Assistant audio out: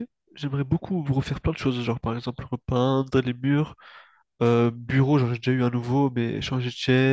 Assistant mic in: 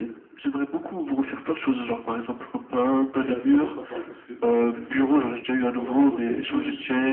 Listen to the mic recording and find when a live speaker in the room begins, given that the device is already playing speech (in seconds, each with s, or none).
3.1 s